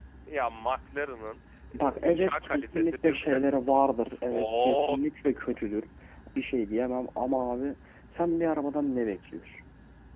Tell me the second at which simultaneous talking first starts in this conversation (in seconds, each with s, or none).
1.7 s